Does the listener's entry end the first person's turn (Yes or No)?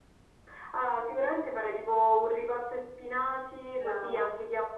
No